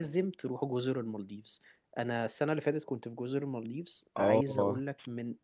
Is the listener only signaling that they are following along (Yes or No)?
Yes